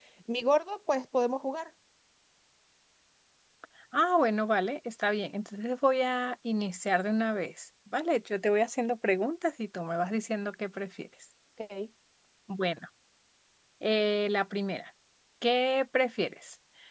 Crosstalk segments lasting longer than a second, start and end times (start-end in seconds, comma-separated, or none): none